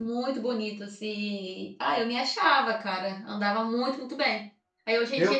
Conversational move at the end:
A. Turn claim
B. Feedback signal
B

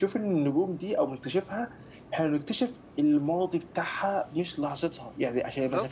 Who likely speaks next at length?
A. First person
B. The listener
A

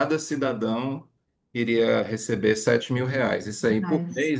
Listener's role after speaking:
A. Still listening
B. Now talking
A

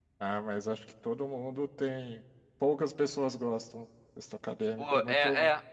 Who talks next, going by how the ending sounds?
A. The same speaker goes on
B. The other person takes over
B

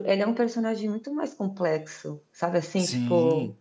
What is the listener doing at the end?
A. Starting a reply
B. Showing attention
B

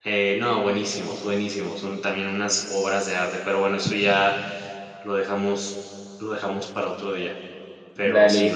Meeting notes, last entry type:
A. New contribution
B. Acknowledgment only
B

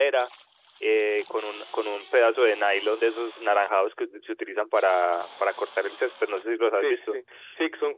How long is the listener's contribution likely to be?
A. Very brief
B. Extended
B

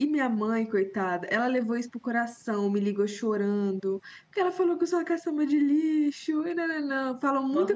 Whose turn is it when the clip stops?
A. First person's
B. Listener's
B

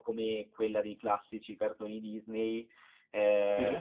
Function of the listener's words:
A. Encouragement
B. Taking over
A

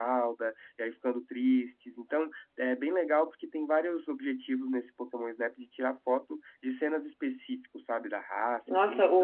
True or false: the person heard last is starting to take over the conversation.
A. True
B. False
A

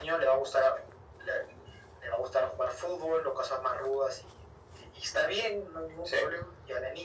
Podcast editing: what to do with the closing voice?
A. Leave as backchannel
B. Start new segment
A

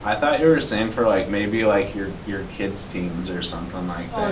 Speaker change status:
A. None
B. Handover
B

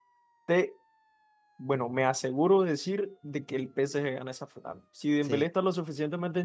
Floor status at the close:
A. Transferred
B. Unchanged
B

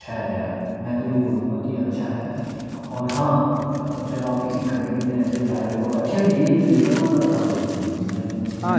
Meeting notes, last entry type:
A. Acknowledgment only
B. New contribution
B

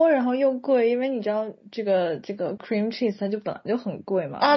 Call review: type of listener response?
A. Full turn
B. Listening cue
A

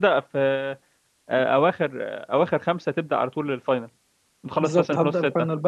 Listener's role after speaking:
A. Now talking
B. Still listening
A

